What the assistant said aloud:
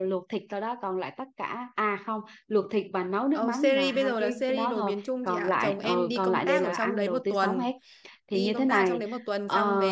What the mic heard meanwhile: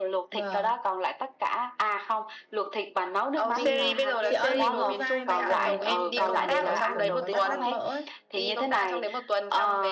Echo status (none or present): present